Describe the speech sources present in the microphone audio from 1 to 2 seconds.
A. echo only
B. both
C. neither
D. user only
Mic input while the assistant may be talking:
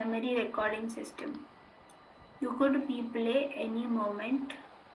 A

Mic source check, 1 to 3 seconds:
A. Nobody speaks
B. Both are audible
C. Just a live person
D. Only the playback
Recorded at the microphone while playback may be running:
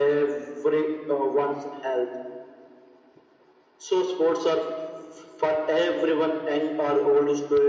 D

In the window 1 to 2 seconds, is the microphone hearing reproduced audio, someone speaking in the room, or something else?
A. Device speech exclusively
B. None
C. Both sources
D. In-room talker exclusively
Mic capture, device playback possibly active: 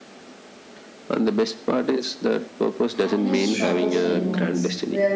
A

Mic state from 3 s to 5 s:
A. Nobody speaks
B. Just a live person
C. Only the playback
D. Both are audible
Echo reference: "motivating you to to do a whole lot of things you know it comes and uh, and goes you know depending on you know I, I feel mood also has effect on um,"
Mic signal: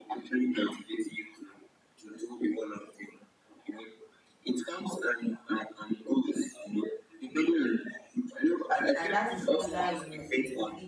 C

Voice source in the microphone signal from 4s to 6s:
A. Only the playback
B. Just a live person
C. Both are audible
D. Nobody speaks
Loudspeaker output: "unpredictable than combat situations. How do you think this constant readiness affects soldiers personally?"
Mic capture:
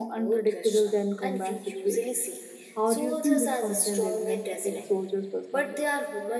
C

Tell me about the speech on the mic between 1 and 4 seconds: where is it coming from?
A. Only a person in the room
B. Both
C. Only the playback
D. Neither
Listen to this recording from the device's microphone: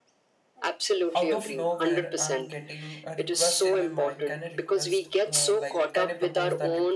B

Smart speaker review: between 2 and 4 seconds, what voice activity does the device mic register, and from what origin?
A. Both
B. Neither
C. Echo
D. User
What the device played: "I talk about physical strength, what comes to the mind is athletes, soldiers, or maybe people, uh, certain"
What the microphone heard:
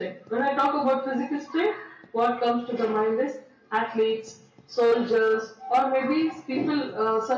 C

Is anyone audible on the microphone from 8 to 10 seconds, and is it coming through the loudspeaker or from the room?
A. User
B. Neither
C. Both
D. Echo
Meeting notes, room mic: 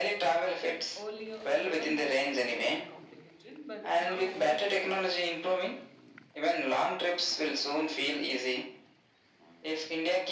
D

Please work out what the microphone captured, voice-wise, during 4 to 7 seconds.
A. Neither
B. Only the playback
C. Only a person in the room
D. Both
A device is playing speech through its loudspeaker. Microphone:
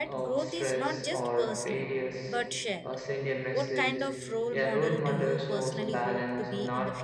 D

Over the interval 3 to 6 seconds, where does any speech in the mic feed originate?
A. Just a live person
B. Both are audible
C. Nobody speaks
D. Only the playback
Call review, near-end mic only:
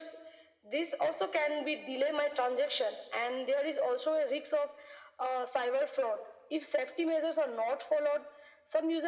D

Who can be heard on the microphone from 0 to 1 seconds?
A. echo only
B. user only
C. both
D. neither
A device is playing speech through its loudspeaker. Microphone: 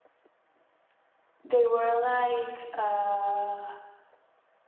D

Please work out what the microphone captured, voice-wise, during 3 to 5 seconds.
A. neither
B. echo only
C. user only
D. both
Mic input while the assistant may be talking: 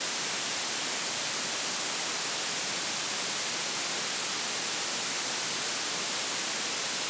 A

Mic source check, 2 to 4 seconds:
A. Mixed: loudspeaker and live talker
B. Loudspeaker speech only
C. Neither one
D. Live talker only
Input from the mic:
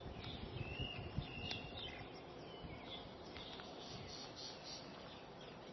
C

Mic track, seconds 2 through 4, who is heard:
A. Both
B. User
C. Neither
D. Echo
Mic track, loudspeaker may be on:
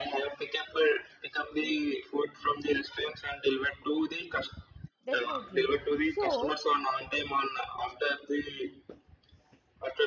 D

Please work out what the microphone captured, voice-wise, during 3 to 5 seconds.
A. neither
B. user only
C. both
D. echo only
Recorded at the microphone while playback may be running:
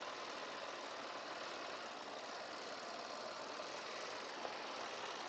A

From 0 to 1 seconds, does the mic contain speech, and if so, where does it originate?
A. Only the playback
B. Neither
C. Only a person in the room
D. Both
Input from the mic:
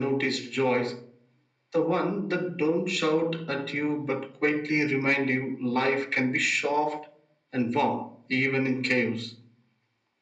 A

